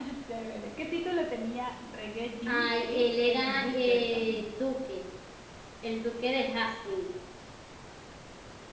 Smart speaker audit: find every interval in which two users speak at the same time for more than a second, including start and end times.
2.5-4.4

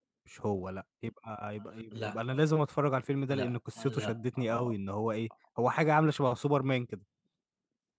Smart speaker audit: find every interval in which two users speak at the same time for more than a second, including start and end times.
3.3-4.7

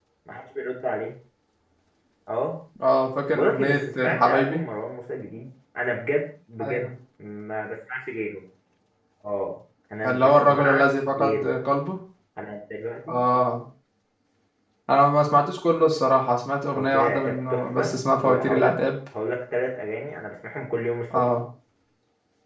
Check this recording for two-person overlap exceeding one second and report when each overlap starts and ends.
3.3-4.6, 10.1-11.6, 16.8-18.8

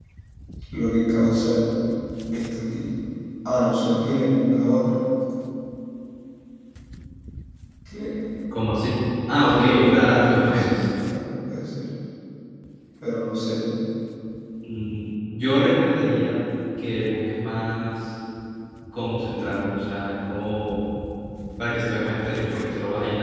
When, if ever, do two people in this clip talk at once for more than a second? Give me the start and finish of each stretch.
9.5-10.8

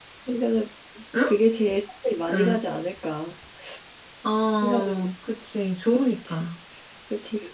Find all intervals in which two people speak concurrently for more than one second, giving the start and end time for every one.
none

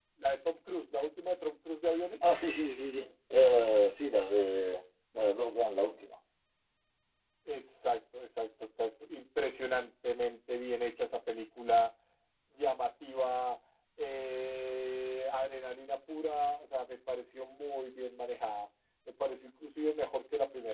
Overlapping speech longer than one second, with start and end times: none

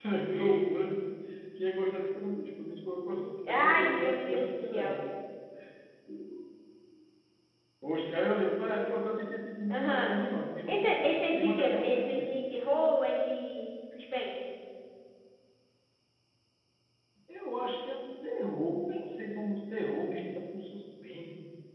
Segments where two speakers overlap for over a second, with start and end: 3.5-5.0, 10.7-12.4

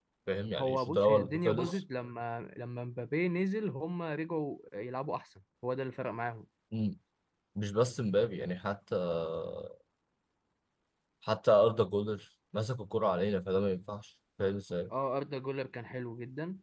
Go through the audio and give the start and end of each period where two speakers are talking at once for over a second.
0.6-1.8

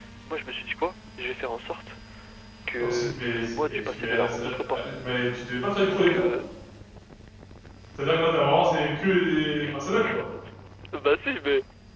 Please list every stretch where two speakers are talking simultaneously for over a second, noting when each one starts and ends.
2.8-4.8

